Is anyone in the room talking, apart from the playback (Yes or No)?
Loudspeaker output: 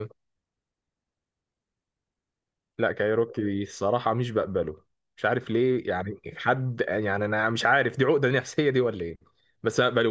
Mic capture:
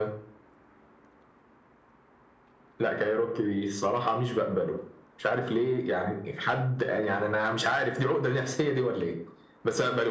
No